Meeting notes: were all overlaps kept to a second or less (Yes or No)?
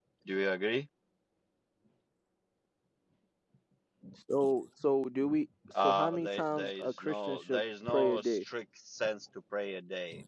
No